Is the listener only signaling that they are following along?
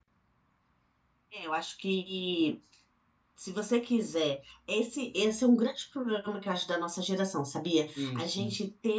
Yes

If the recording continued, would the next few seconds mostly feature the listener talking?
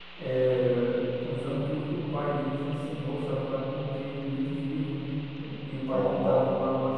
No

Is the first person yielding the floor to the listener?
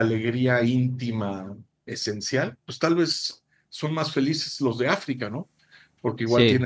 No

